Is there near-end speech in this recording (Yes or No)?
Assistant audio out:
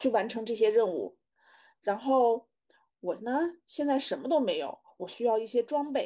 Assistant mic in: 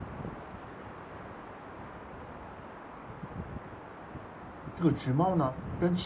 Yes